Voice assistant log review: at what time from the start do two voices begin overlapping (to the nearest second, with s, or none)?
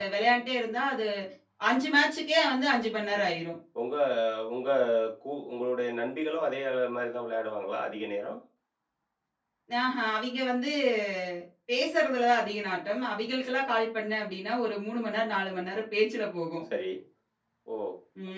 none